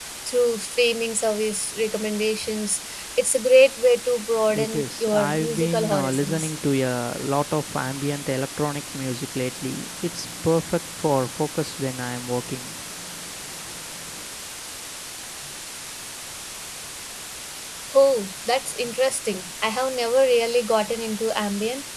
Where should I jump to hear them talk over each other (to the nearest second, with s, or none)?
4 s